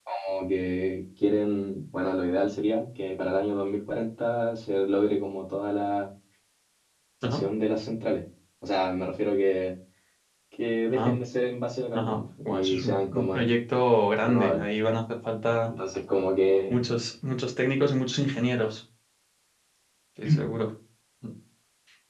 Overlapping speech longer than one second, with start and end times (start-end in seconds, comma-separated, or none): 11.9-13.4